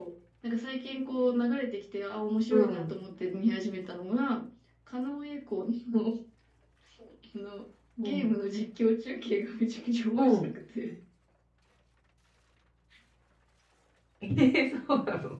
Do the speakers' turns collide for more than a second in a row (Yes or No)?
No